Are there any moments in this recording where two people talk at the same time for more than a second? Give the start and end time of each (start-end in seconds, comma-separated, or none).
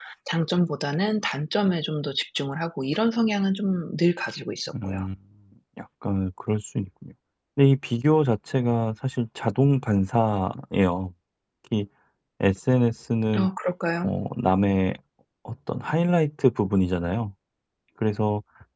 none